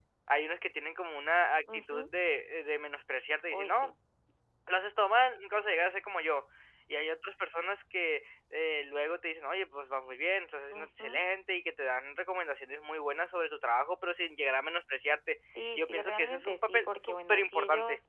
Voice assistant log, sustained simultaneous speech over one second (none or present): present